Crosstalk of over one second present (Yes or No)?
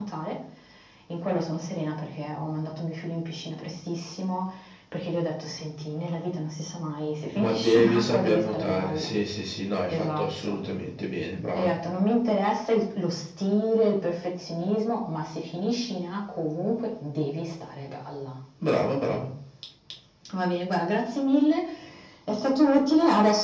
Yes